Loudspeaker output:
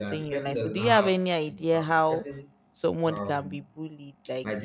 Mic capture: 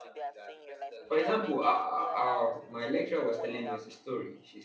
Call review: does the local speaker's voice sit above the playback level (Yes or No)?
Yes